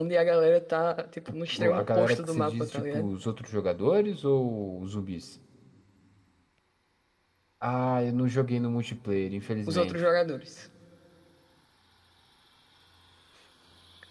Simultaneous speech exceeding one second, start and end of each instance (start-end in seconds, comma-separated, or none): 1.5-3.1